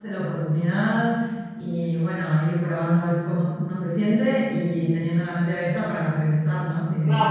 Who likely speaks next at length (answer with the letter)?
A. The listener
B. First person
A